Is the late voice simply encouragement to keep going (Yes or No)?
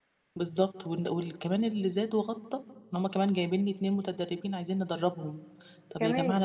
Yes